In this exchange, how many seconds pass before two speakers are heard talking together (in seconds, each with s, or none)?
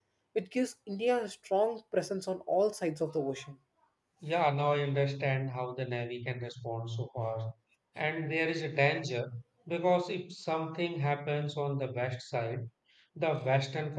none